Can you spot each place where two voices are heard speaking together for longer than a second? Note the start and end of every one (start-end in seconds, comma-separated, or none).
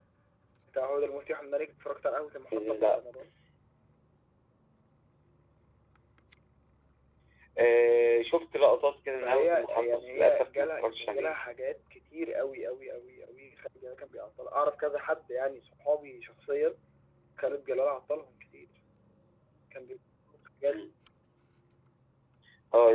9.2-11.4